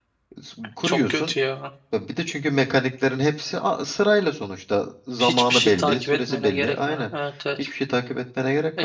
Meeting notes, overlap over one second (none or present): present